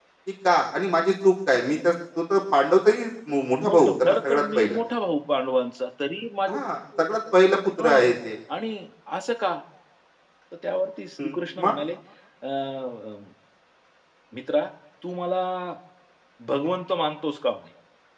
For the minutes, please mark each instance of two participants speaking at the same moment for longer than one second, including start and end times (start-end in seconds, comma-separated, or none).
3.6-4.8